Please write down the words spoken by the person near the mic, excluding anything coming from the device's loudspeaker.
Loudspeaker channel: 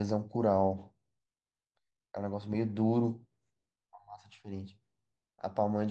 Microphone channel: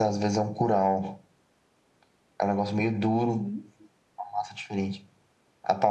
Uhum,

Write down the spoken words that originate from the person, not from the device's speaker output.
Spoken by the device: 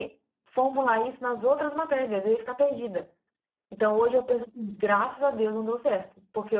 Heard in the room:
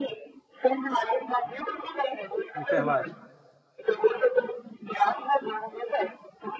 Enfermagem.

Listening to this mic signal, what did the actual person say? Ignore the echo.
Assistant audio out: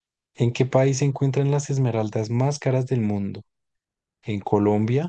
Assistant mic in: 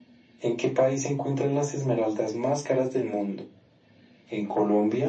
none

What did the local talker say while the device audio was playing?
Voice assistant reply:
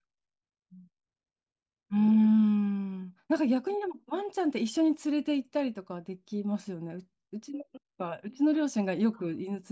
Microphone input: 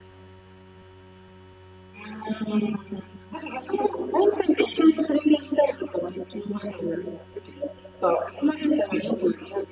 none

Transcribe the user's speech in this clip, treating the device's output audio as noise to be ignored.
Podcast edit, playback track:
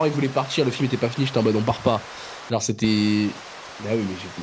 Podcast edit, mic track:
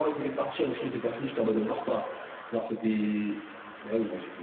none

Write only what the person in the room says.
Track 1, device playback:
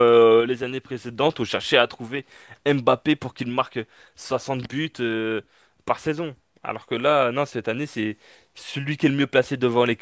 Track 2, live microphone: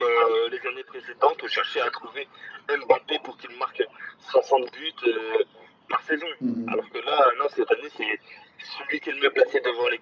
Mhm,

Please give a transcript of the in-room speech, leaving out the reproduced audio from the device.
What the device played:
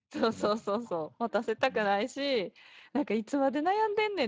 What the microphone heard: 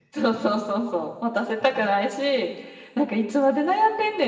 none

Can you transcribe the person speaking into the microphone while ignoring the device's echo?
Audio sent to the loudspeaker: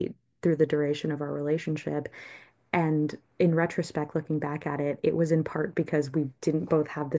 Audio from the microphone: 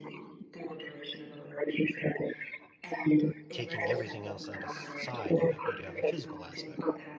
taking everything else out aside, you you do have a physical aspect,

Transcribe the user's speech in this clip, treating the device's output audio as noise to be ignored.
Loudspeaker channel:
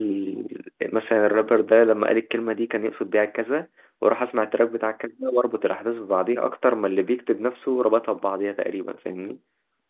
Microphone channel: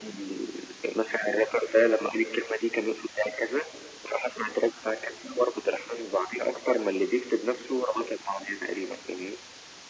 none

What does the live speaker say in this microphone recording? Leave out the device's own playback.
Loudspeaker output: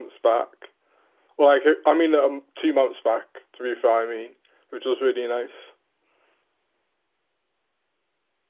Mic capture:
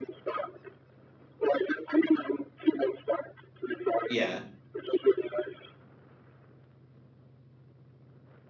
Yeah.

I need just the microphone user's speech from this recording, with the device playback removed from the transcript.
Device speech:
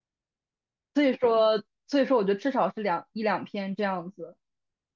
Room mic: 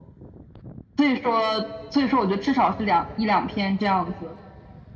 none

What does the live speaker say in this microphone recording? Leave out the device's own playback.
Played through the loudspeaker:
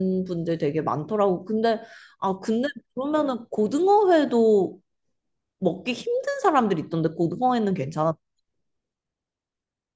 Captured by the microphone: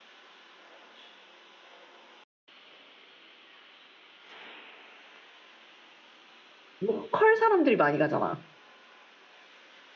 로컬 사람들이 많이 가잖아.

